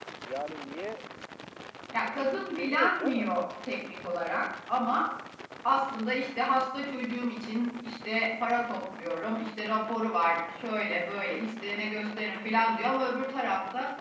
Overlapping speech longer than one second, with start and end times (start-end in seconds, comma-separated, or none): 2.1-3.3